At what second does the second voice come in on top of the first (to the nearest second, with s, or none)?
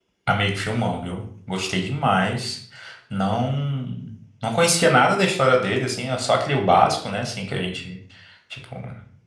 none